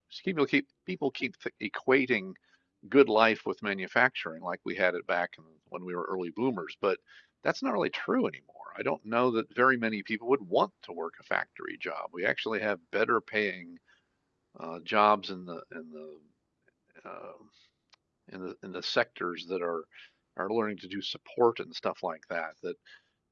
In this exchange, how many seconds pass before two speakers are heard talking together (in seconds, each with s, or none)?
none